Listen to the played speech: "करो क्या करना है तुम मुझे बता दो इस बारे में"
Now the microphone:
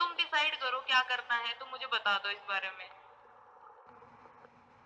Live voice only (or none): none